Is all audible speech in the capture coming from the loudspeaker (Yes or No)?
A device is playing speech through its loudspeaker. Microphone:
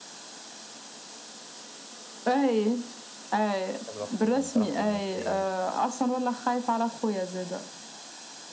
No